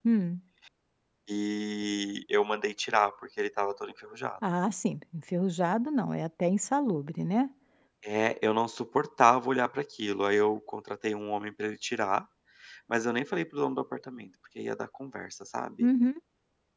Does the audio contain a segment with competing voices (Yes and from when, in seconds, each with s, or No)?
No